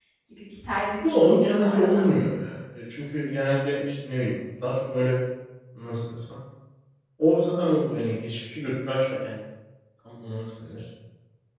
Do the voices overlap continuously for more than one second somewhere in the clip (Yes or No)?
Yes